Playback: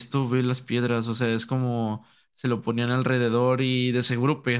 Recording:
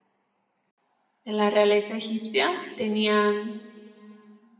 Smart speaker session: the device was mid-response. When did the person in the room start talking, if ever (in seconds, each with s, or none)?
1.2 s